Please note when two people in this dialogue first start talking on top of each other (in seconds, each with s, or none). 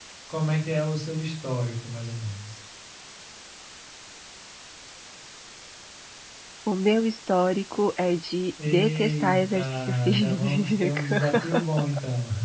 8.6 s